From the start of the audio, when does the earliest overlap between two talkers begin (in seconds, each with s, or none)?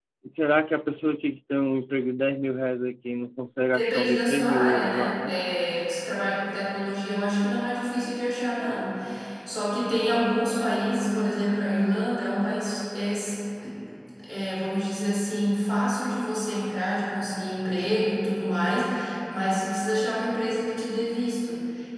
3.7 s